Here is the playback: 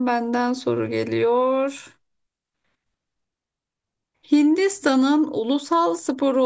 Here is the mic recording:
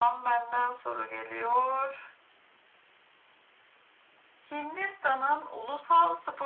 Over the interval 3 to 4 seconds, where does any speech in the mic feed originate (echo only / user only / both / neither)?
neither